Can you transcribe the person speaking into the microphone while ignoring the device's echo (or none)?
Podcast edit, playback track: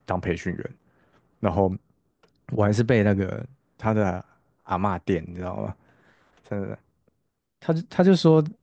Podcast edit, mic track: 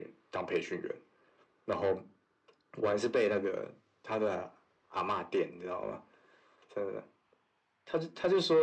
none